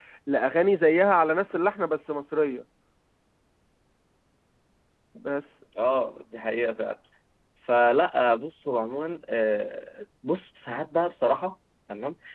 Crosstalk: none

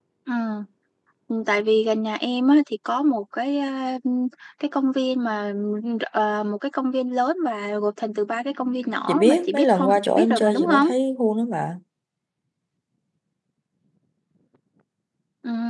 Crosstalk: present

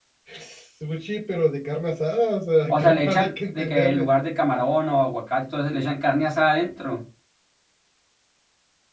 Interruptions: present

